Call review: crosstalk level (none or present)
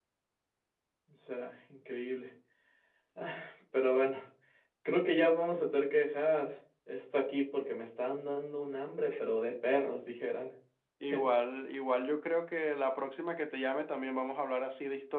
none